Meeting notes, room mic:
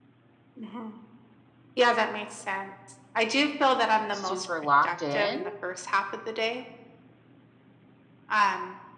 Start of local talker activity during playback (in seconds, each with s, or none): 4.1 s